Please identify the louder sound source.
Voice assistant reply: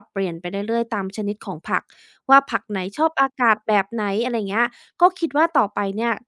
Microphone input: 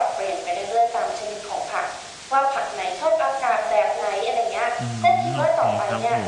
echo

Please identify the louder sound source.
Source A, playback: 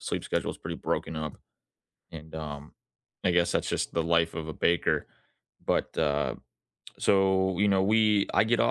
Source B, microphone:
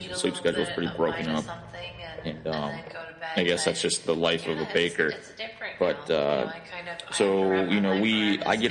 echo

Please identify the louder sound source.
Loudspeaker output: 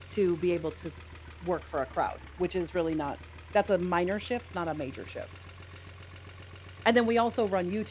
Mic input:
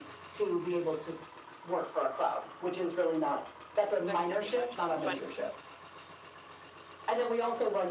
echo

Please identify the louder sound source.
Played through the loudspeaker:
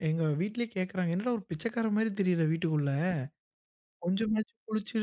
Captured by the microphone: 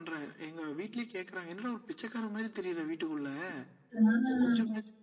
user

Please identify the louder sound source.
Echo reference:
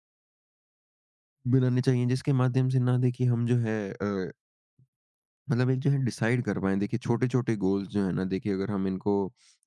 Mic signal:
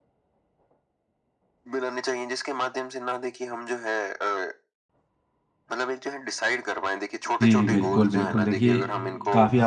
user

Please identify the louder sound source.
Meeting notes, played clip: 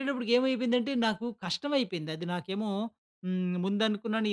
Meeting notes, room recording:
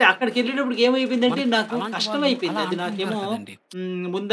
echo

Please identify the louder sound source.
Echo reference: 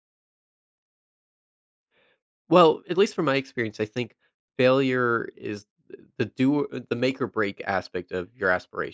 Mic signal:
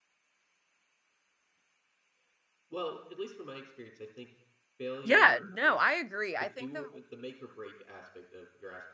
user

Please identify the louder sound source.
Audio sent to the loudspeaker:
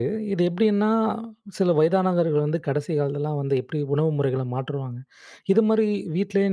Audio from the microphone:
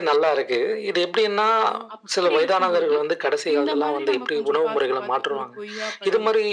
echo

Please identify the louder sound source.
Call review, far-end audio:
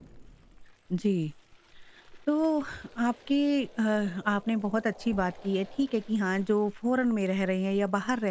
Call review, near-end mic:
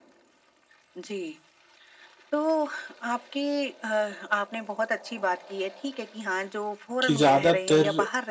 user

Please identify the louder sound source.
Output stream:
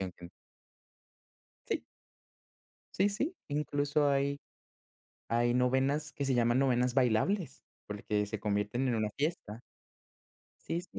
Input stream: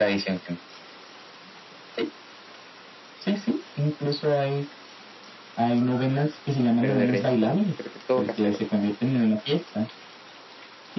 echo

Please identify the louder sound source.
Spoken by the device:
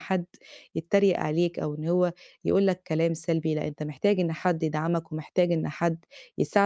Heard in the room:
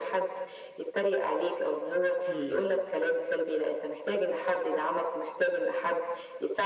echo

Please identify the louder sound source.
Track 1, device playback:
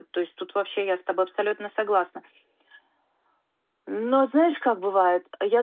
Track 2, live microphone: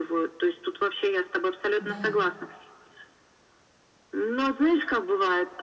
echo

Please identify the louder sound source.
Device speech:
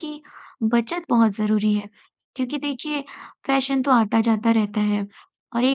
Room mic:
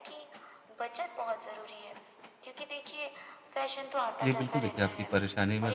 user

